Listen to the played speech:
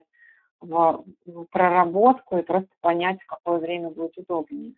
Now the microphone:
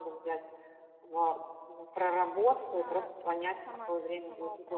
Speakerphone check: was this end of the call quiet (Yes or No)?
No